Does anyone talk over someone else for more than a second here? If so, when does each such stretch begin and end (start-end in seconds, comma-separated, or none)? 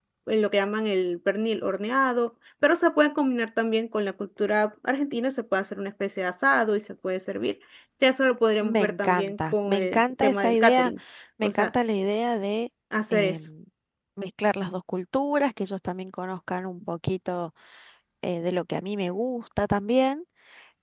8.6-10.9